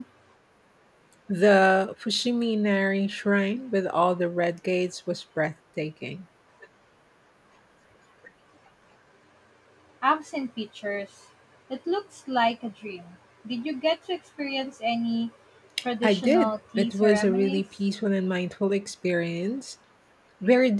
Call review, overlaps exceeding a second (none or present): present